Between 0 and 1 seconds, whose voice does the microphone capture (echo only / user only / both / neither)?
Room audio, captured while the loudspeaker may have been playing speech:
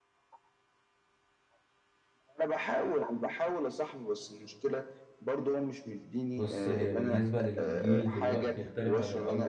neither